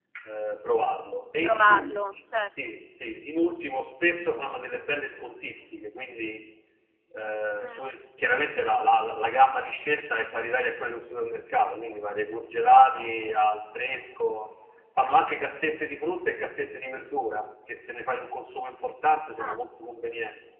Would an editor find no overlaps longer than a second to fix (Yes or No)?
Yes